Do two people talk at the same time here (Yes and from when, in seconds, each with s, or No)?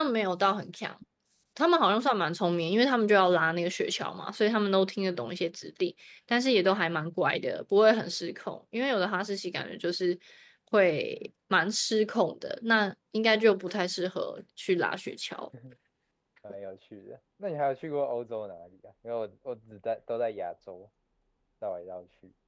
No